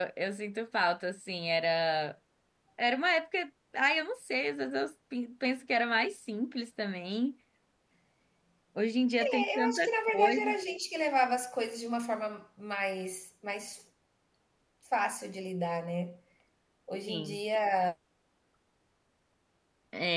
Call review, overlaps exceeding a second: present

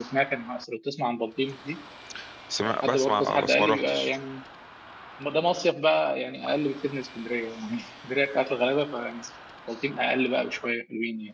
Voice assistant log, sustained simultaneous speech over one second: present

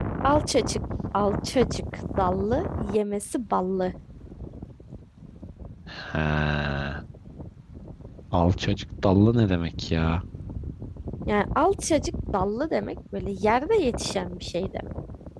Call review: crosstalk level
none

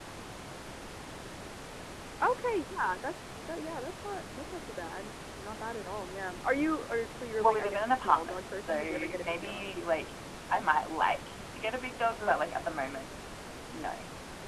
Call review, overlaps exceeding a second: present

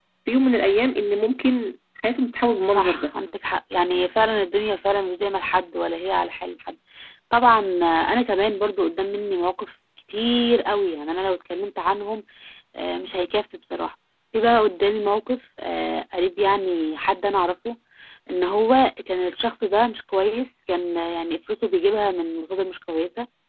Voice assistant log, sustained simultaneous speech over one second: none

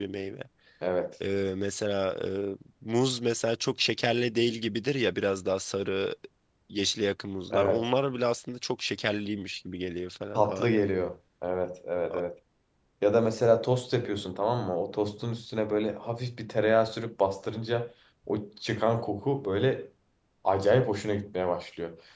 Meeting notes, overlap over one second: none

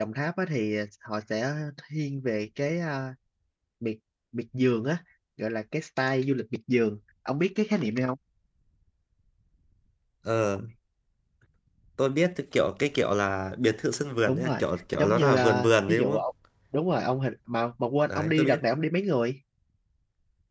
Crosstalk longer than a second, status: present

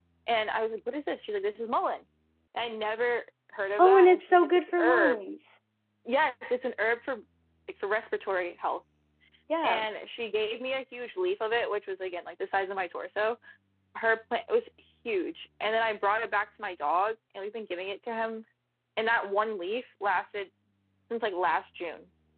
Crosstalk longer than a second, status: present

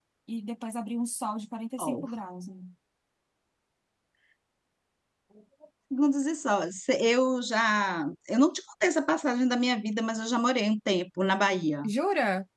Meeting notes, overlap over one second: none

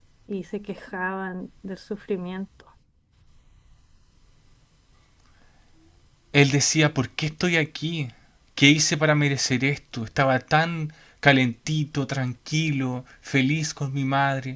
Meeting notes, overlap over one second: none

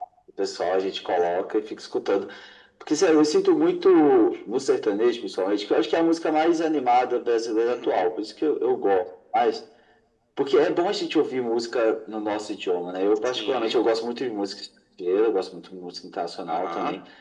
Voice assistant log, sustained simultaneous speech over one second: none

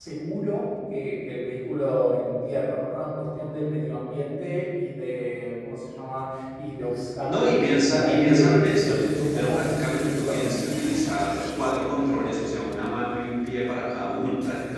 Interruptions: present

